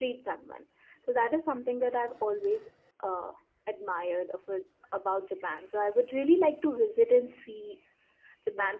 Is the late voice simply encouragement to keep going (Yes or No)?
Yes